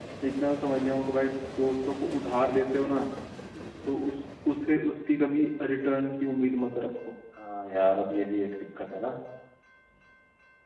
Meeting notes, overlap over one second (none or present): none